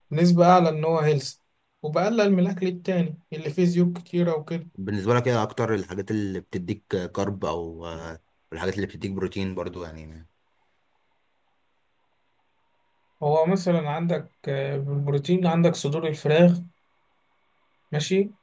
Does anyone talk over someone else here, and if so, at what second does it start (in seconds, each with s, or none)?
none